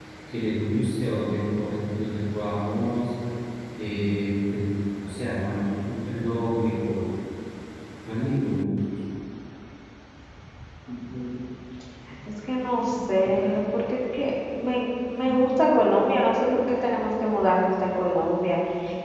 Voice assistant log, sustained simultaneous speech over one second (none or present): none